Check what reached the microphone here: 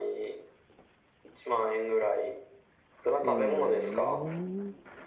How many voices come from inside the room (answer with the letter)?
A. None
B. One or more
B